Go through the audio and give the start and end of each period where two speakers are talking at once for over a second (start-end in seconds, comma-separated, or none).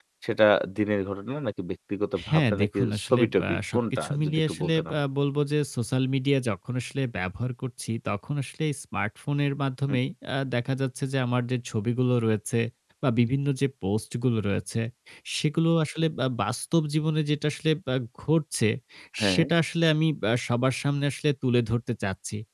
2.3-5.0